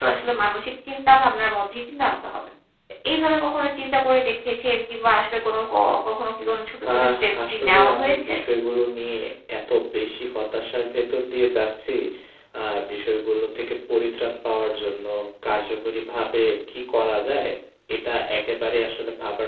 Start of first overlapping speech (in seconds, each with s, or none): 6.8 s